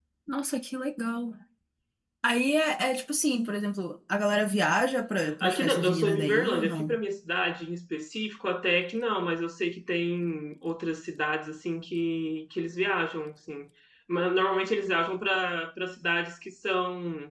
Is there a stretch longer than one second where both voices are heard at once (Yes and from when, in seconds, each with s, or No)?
Yes, from 5.2 s